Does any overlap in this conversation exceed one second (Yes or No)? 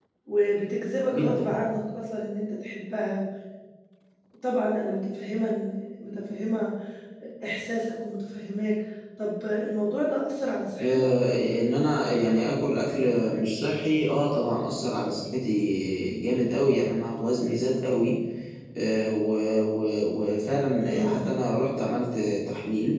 No